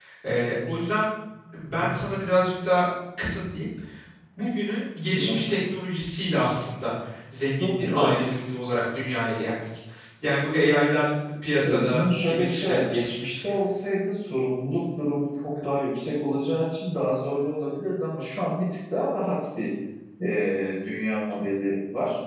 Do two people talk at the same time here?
Yes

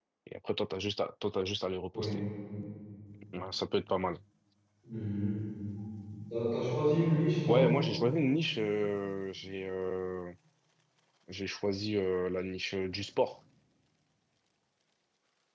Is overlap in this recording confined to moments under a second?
Yes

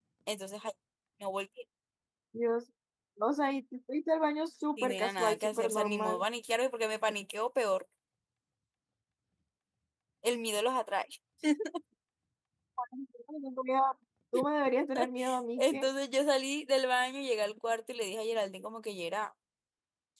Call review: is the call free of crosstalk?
No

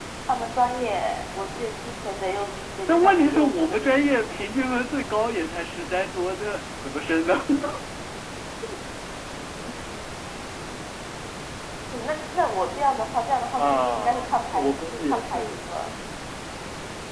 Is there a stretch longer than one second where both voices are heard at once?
Yes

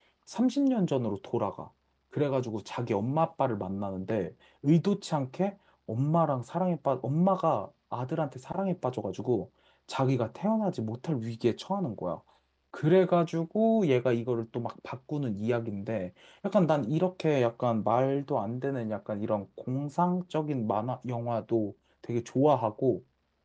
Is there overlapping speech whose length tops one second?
No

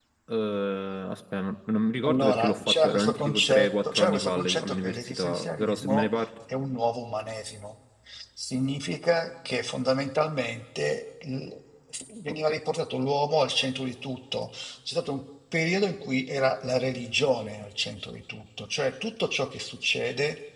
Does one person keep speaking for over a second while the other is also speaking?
Yes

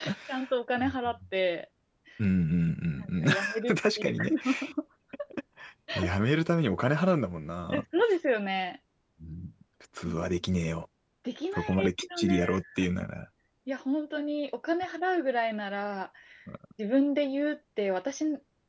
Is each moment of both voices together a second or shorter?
No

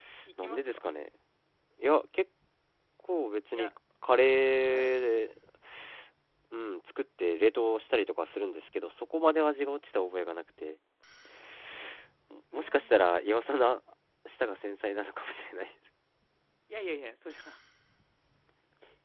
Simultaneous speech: Yes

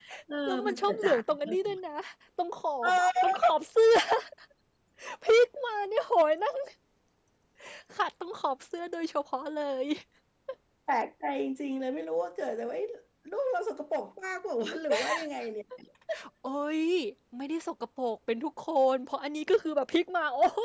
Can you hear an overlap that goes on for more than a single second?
Yes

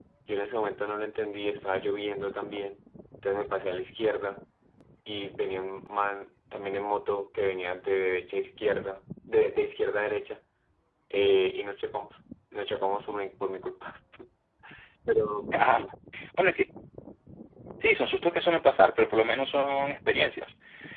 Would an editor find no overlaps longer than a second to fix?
Yes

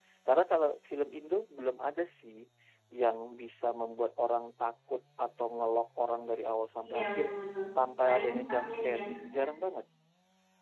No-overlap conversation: No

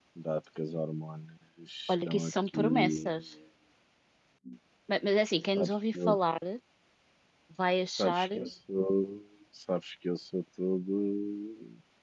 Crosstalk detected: Yes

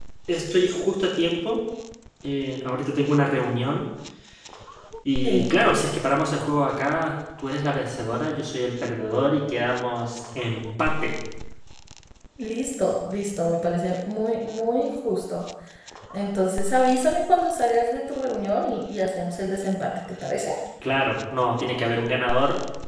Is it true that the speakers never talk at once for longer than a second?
Yes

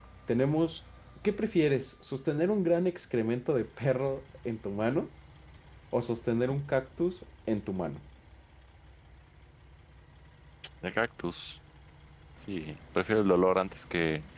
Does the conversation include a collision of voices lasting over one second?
No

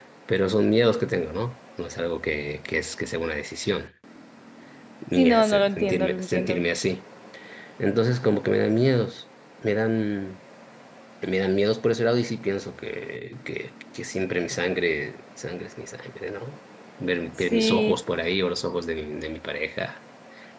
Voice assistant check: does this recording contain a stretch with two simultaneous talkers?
Yes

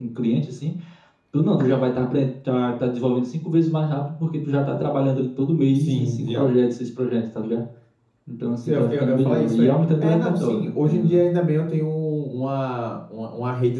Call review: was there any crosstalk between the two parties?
Yes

